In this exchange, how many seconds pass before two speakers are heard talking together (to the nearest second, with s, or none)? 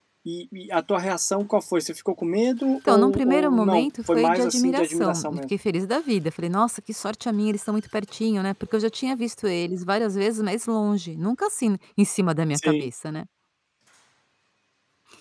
3 s